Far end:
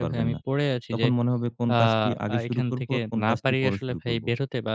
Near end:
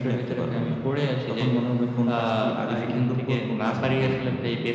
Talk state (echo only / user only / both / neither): both